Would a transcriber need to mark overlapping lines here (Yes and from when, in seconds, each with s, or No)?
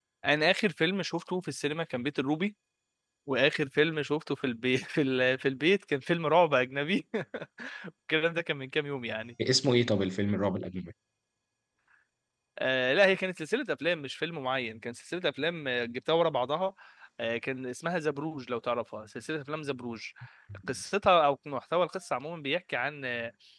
No